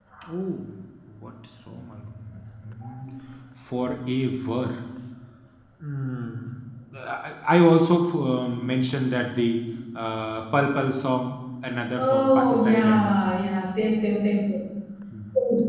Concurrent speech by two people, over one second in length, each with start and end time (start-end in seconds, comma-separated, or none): 12.0-13.2